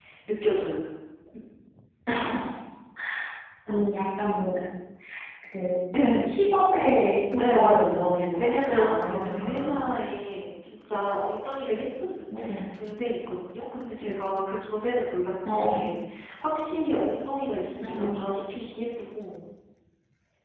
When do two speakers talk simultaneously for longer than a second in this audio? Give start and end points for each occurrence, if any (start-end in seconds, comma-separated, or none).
7.4-9.8